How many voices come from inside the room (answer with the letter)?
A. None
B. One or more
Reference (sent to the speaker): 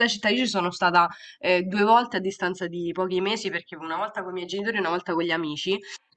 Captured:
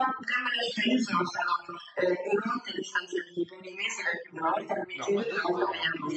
B